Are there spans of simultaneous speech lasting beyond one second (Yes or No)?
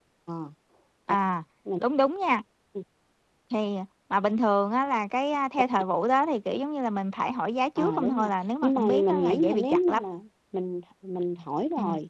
Yes